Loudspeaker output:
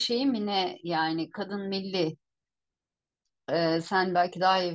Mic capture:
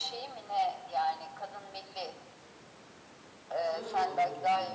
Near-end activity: present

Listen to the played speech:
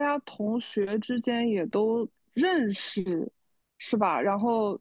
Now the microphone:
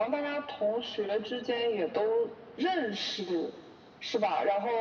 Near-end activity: none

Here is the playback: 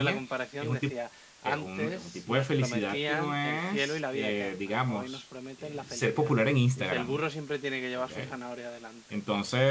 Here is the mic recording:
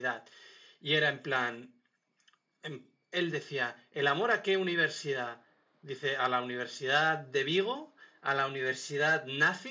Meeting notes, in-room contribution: present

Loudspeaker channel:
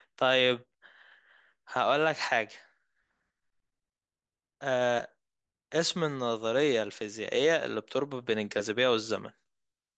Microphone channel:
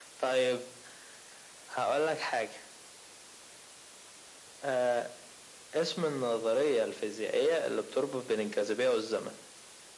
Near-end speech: none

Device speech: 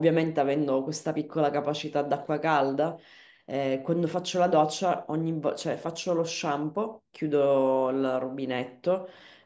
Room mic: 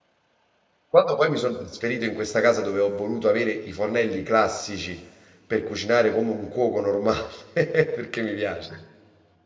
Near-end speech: present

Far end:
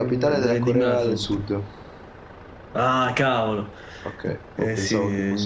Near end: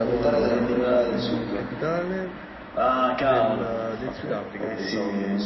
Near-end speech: present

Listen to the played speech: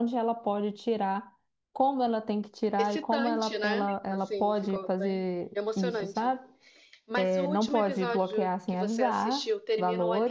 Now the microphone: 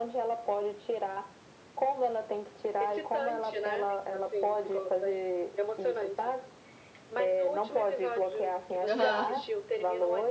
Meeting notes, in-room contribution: present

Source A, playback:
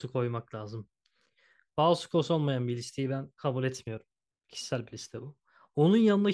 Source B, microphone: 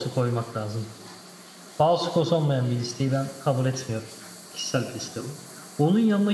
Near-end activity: none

